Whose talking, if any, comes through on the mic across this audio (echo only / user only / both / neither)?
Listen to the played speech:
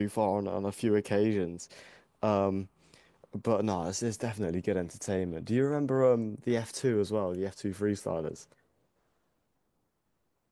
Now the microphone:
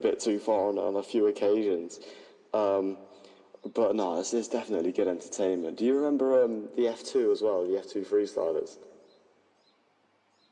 echo only